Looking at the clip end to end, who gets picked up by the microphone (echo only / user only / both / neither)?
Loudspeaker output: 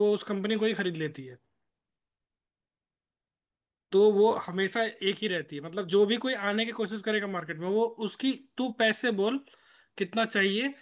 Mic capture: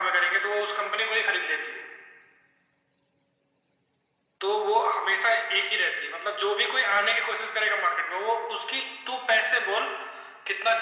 echo only